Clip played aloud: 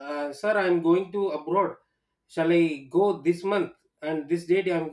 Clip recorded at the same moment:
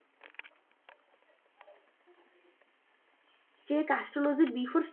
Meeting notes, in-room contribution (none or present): present